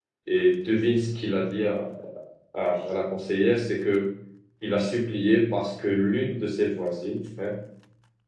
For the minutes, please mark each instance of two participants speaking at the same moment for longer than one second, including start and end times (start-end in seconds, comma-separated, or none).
none